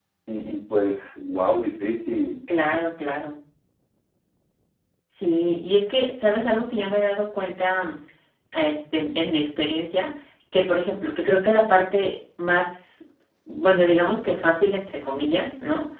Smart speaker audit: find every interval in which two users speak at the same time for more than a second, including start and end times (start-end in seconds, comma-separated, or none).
none